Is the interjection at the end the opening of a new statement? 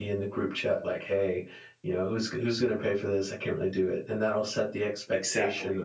No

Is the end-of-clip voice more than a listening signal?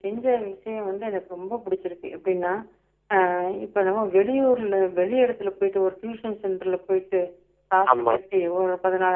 No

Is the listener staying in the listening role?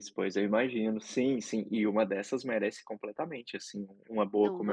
Yes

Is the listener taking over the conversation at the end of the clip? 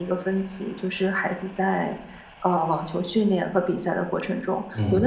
No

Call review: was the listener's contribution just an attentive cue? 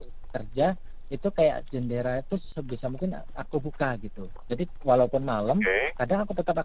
Yes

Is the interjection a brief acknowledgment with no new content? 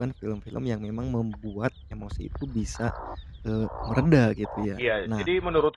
No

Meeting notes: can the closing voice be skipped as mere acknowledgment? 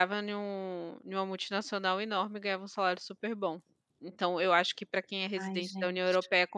Yes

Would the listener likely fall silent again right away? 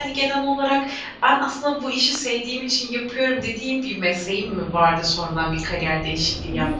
No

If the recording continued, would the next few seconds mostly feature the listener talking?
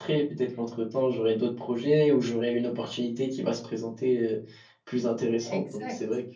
Yes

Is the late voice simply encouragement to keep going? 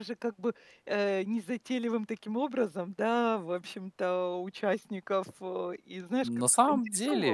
No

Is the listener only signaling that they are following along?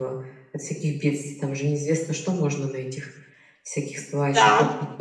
No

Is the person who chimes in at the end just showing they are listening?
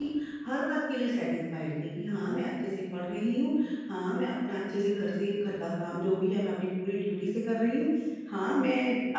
Yes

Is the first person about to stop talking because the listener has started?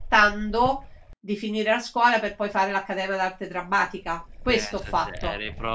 Yes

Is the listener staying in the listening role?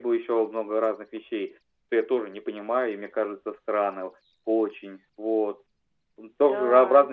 Yes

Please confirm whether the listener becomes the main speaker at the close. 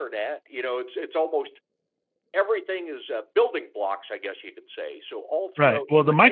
Yes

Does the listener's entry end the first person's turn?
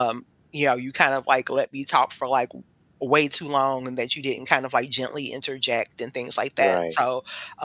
No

